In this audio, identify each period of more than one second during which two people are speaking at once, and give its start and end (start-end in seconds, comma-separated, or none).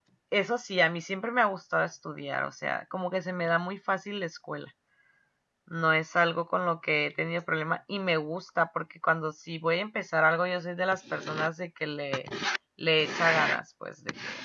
none